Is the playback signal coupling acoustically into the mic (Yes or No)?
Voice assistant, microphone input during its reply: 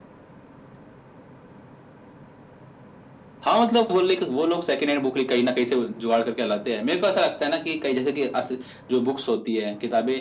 Yes